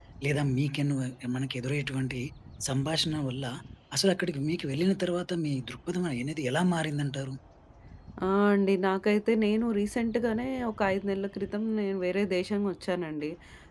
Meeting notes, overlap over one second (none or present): none